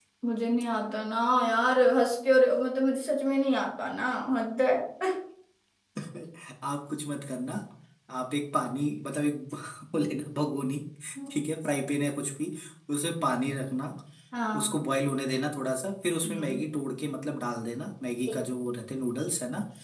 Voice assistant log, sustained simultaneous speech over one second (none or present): none